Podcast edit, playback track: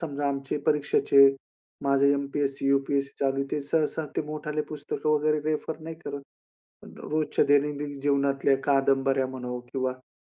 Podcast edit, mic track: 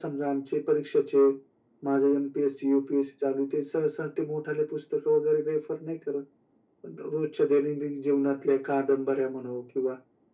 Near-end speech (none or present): none